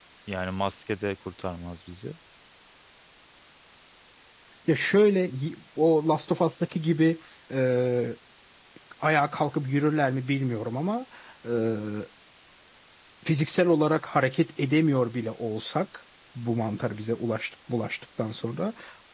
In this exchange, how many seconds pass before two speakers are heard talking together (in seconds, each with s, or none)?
none